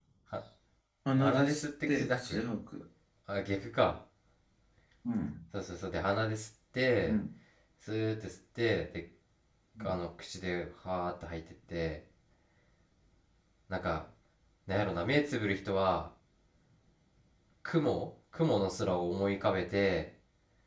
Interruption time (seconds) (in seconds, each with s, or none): 1.1 s